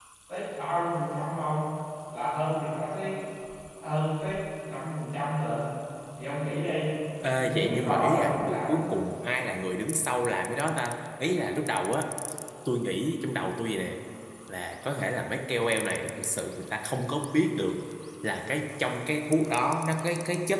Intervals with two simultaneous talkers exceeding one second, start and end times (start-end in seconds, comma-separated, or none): 7.4-8.8